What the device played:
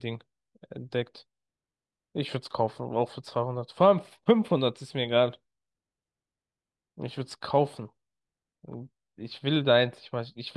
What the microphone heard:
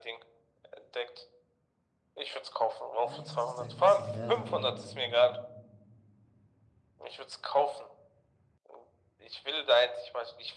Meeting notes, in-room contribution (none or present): present